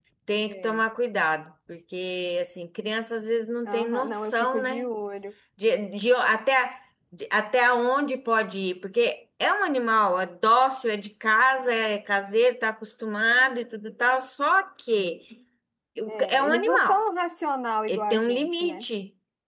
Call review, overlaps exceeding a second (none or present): present